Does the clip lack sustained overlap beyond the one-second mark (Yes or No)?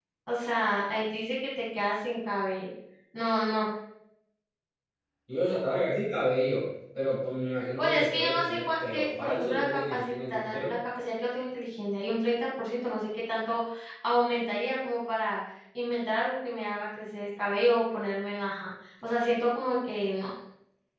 No